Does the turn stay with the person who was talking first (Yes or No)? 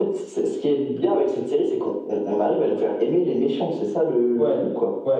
No